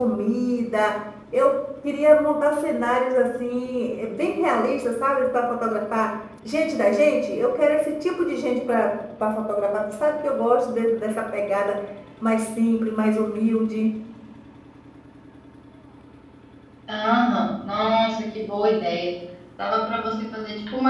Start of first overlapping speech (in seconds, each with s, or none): none